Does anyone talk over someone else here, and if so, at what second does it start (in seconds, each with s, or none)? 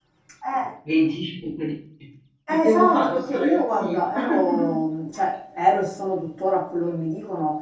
2.5 s